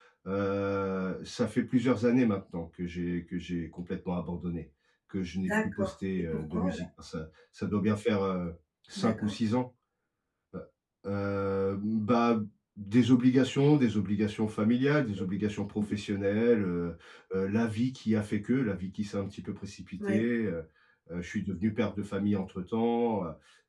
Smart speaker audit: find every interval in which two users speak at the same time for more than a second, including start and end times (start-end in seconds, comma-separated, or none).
5.4-6.8